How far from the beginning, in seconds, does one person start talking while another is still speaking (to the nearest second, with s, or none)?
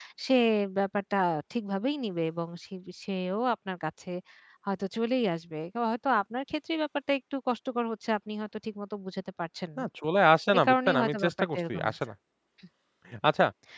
11 s